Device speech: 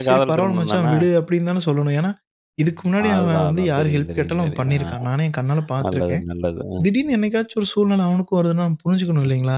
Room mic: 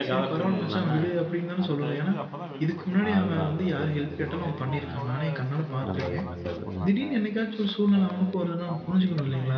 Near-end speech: present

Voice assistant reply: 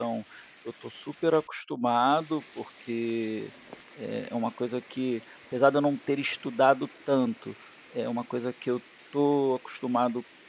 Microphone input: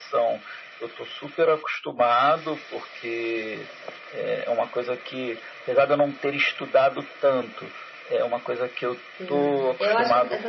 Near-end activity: present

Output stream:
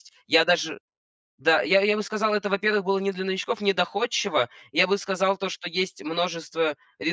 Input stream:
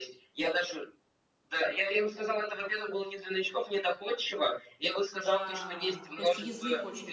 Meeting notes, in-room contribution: present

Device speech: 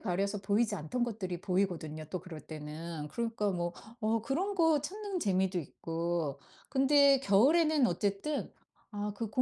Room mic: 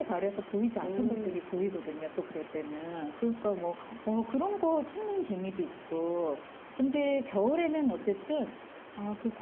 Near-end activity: present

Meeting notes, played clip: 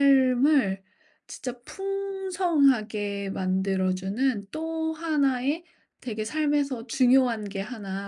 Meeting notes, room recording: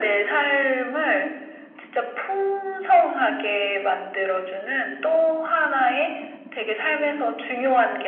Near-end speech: none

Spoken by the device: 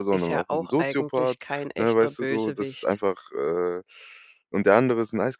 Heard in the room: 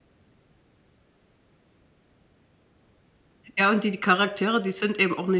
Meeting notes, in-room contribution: present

